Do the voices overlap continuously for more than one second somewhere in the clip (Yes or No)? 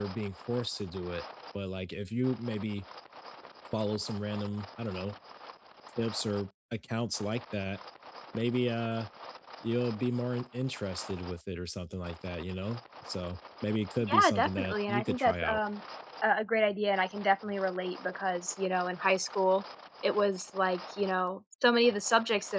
Yes